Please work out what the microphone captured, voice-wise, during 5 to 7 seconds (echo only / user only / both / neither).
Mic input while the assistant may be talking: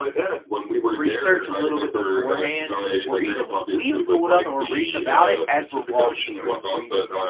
both